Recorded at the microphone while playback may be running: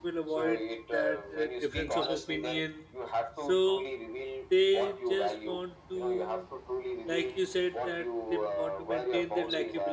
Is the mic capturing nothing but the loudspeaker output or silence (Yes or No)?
No